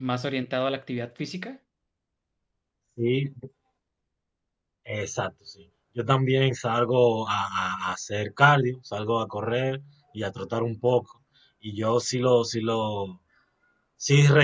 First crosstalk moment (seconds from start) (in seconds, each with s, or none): none